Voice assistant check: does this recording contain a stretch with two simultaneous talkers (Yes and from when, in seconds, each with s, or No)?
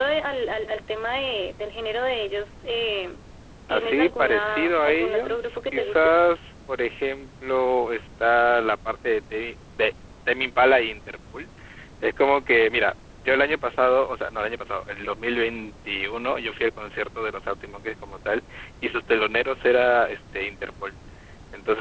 Yes, from 3.7 s